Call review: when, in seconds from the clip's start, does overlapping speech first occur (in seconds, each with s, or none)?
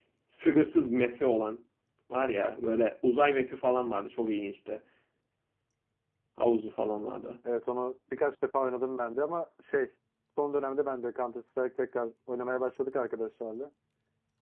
none